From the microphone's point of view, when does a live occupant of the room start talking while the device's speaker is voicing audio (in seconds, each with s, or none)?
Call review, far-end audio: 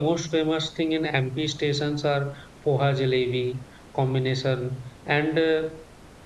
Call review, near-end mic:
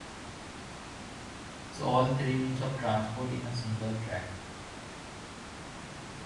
1.7 s